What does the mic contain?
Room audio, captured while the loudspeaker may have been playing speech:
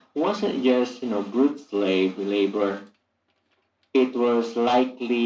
echo only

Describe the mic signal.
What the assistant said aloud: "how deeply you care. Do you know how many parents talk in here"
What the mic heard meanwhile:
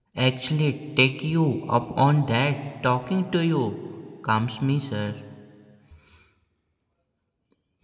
user only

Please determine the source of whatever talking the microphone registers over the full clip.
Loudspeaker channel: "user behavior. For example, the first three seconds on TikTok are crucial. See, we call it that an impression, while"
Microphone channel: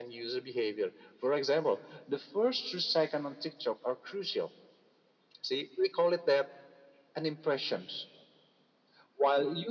echo only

